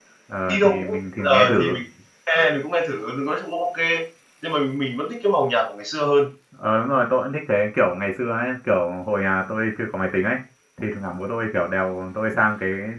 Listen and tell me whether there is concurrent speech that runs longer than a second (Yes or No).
Yes